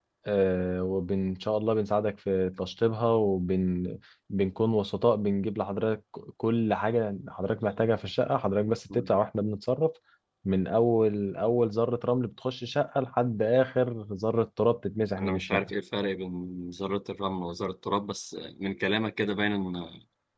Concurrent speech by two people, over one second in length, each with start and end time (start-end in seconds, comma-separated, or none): none